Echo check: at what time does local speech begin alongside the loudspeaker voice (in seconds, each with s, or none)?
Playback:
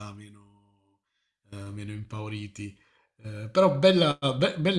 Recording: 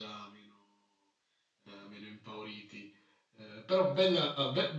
none